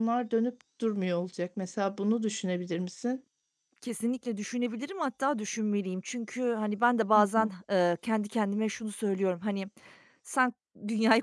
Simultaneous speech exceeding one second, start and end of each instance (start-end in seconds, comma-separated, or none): none